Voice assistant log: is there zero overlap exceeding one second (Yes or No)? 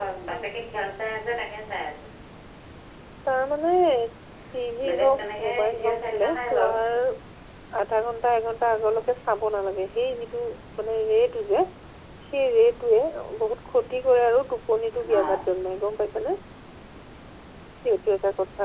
No